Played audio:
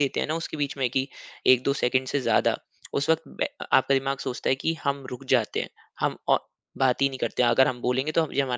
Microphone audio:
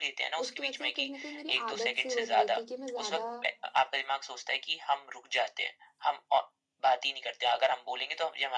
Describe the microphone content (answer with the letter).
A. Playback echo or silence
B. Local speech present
B